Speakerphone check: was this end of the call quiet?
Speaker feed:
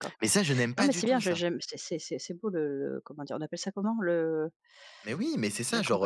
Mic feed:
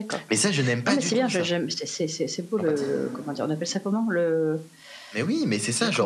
No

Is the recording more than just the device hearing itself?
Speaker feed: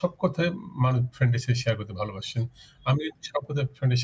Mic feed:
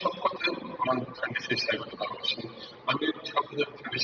No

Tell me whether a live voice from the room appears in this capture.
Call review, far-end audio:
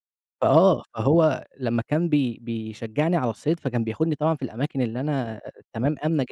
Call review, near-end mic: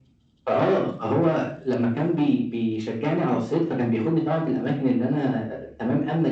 No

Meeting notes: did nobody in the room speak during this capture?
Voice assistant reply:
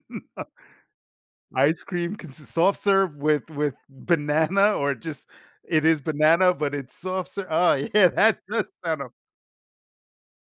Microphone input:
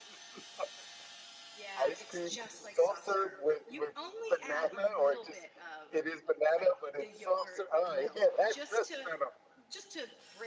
No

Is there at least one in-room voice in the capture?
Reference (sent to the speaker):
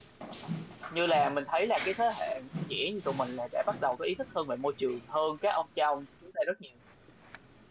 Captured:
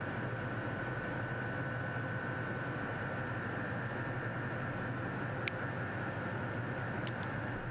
No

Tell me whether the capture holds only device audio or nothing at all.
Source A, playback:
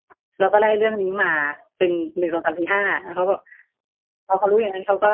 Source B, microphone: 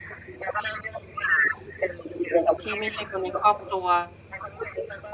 No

